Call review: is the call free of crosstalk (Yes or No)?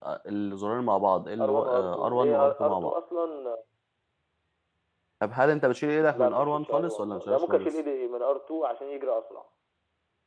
No